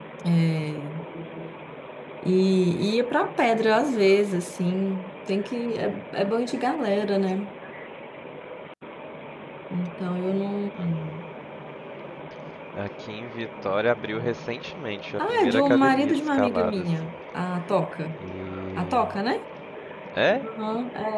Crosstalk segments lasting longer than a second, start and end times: 15.2-16.9

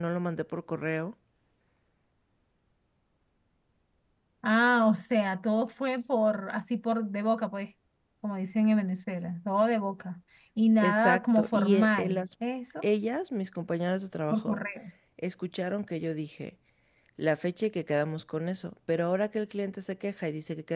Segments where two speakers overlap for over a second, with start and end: 10.8-12.2

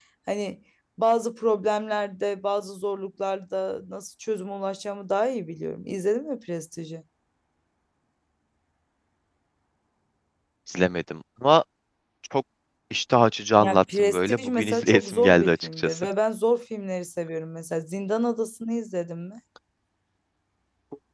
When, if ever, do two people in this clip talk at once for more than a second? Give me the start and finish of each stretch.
13.6-16.1

